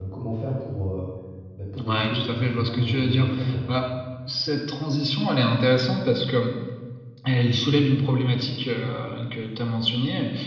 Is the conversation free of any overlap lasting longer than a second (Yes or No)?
No